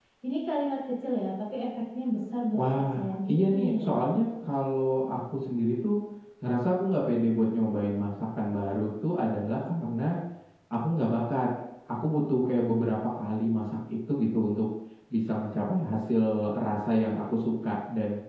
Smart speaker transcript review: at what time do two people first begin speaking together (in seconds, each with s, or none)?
2.5 s